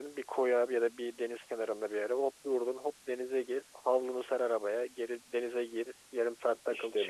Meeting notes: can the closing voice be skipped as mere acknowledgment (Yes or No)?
Yes